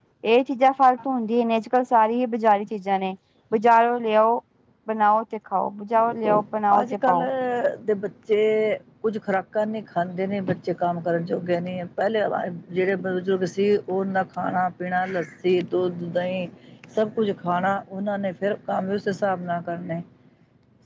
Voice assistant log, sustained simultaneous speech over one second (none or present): none